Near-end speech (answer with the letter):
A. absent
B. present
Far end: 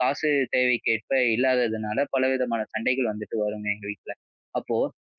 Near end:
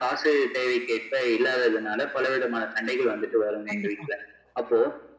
B